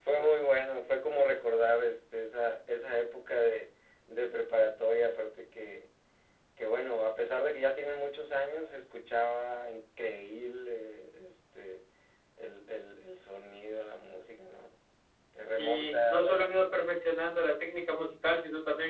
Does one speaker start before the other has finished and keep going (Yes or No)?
Yes